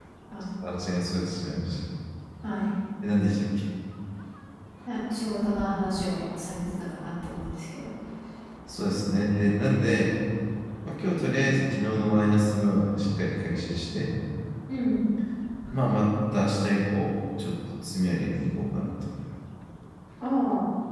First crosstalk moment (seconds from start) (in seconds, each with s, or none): none